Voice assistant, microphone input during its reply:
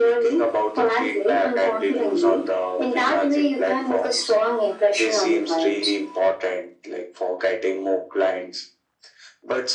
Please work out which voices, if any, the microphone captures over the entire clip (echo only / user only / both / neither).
echo only